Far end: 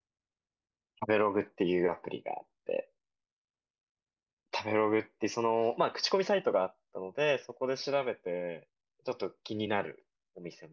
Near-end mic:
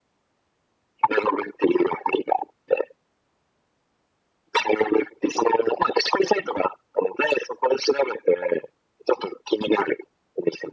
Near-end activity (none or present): none